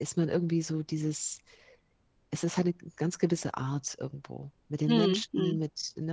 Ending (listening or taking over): listening